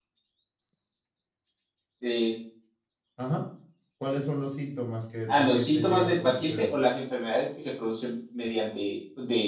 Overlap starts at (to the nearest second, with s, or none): 5 s